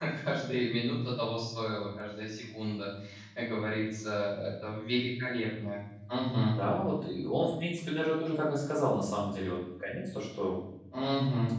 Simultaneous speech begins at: none

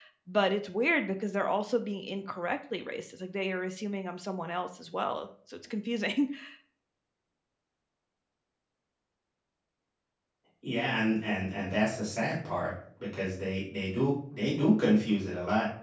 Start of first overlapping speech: none

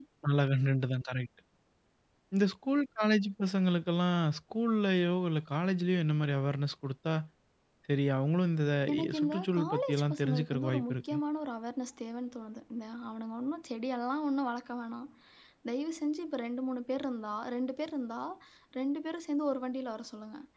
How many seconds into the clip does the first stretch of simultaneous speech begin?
9.0 s

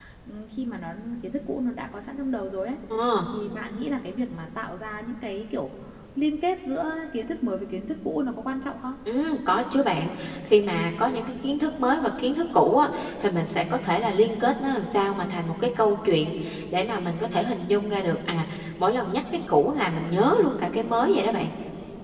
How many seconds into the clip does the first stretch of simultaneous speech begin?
none

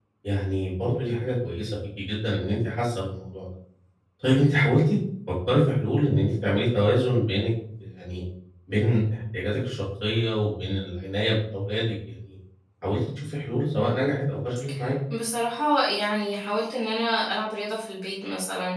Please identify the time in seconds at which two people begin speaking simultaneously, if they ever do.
none

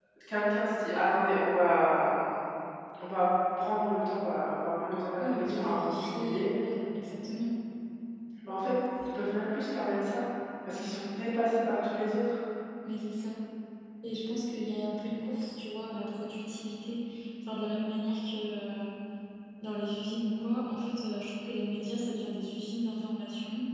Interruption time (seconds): 5.2 s

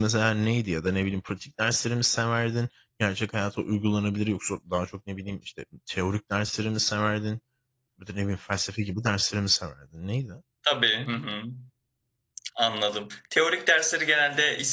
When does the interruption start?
none

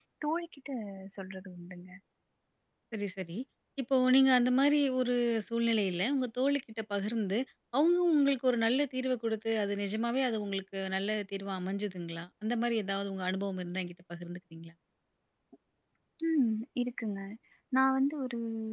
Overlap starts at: none

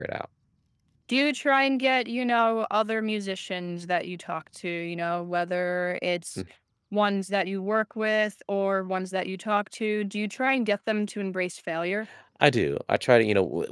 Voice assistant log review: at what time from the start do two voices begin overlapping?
none

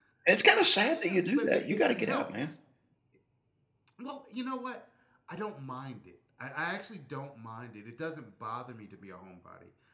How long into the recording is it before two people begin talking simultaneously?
0.9 s

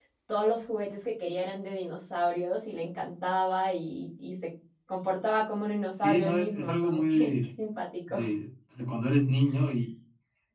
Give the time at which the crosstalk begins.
5.9 s

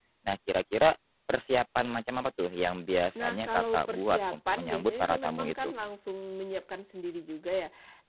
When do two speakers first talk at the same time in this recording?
3.1 s

